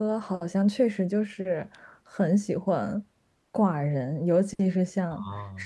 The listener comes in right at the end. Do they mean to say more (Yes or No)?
No